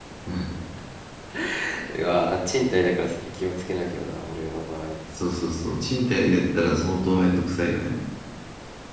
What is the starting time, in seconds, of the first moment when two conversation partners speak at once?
none

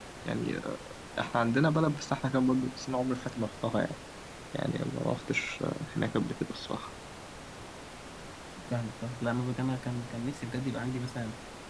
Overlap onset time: none

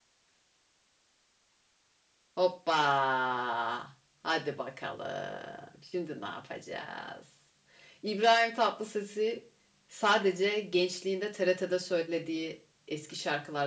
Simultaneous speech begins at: none

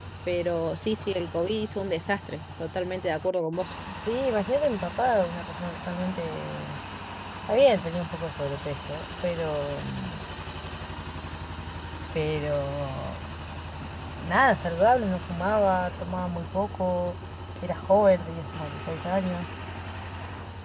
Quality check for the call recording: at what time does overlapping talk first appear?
none

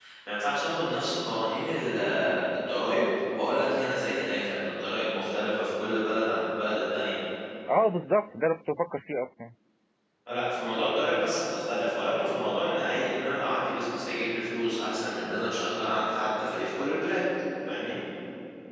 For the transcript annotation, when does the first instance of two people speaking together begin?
none

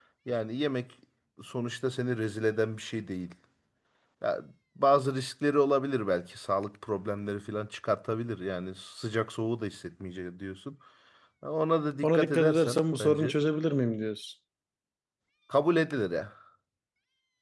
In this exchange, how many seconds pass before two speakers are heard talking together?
12.0 s

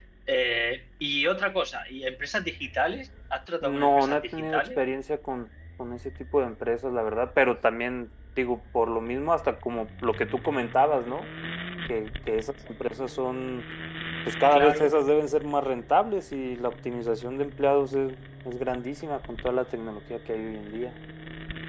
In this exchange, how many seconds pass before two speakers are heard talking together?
3.6 s

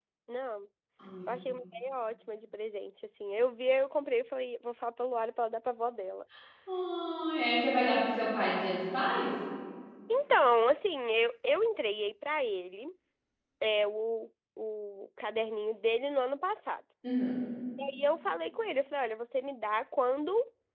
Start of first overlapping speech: none

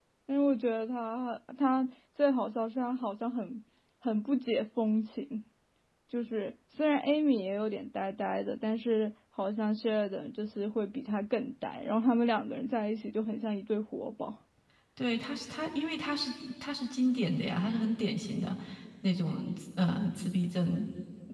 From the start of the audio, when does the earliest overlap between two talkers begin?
none

